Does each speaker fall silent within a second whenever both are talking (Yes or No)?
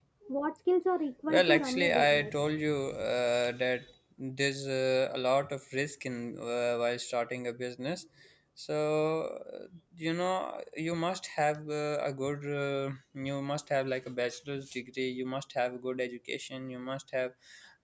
No